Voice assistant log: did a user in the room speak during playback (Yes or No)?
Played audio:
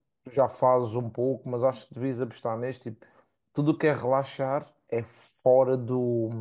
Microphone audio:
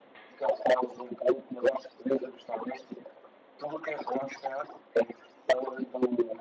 No